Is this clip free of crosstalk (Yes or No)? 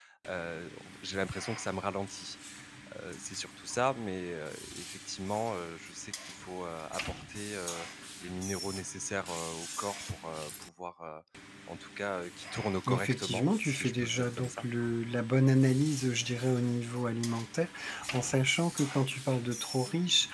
No